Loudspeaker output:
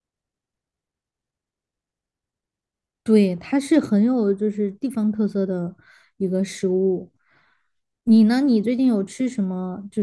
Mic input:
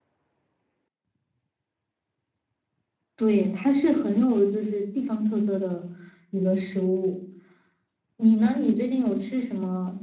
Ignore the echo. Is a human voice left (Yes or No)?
No